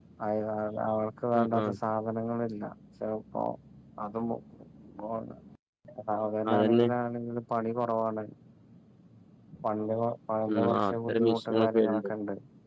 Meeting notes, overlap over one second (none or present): present